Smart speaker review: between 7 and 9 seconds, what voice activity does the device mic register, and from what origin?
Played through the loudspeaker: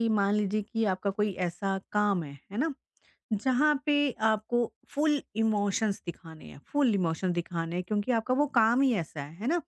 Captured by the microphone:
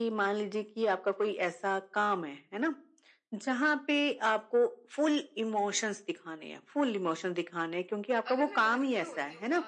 both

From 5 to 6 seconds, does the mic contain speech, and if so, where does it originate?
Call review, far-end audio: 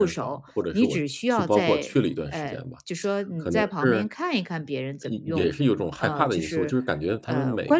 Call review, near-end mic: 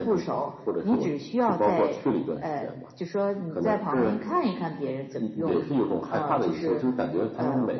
echo only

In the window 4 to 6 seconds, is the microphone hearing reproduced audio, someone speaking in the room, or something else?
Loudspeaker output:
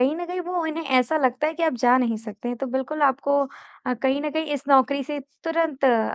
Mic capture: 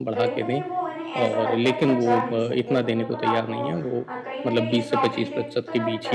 both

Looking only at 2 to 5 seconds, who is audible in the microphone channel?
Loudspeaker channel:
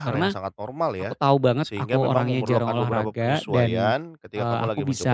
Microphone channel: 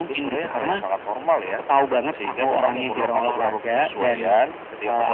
echo only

